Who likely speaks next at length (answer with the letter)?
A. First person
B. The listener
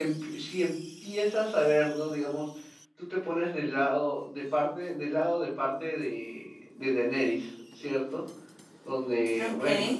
A